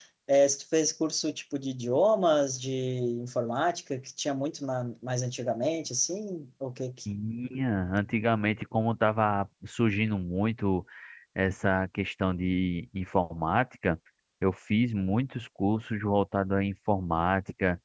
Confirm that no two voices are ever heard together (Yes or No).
Yes